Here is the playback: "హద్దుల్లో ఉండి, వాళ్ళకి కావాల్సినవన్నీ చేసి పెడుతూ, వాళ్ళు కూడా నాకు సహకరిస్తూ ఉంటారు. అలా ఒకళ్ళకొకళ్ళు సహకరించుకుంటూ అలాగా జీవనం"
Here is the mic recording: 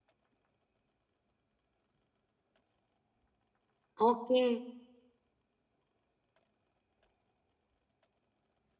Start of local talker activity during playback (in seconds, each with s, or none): 4.1 s